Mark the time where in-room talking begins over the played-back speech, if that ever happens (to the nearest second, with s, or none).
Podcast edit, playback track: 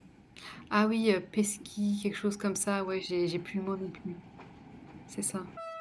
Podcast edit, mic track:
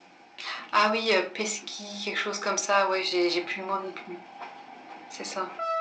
none